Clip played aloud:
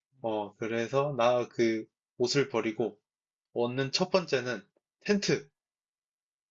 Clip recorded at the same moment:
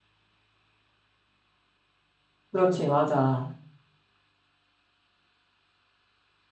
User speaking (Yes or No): Yes